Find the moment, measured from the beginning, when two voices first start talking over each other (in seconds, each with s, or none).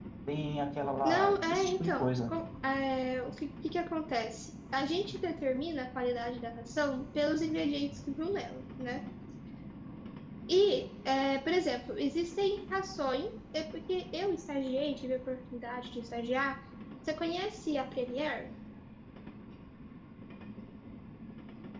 1.0 s